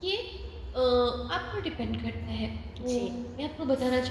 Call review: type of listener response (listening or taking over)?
listening